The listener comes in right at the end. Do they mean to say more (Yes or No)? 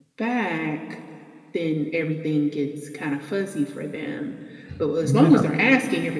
No